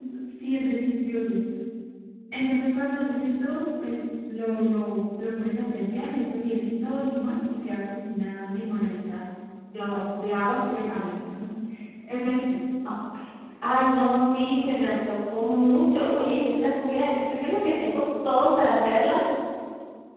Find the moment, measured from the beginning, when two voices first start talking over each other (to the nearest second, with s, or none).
none